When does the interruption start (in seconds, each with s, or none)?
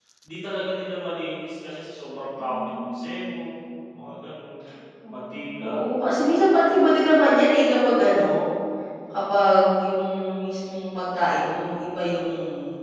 2.4 s